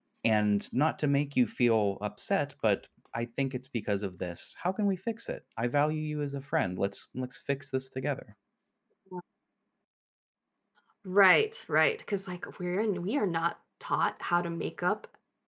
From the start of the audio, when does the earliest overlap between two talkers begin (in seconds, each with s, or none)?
none